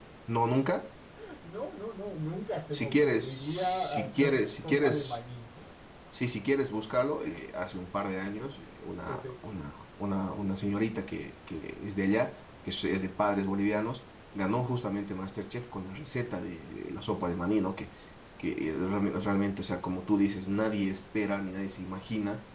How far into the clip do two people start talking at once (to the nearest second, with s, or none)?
3 s